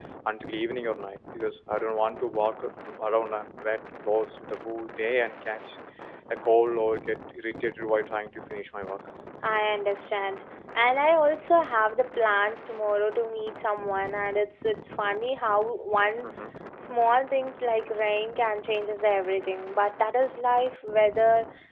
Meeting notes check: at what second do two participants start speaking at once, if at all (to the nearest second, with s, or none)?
none